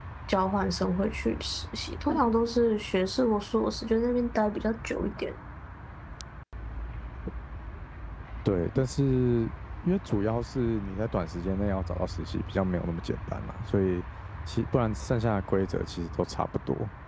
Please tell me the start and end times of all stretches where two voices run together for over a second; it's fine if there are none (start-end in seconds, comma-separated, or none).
none